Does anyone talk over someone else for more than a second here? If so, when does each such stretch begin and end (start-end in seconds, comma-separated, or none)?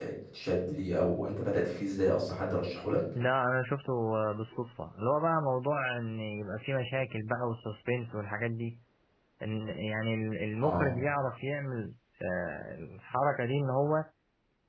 none